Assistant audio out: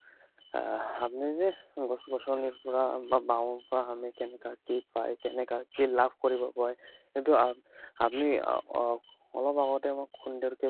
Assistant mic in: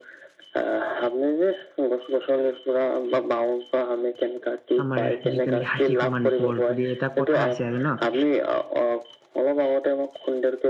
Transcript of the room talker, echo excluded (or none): আমাৰ যিটো নেকি হাতী সমান বল বুলি এটা কথা আছে আৰু ন'